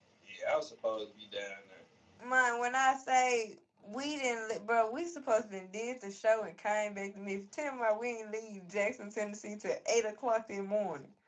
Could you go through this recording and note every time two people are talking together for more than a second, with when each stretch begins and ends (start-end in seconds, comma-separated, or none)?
none